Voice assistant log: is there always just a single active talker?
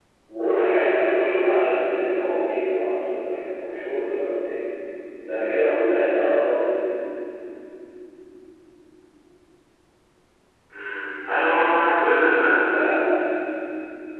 Yes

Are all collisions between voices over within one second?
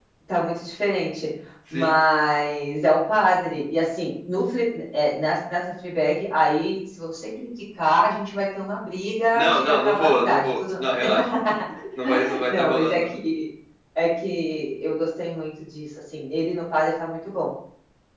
No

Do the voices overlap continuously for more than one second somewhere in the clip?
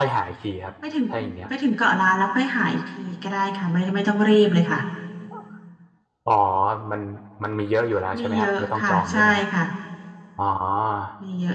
Yes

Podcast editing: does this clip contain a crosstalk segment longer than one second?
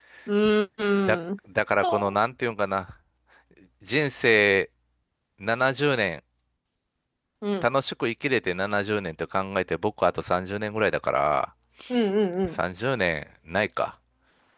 No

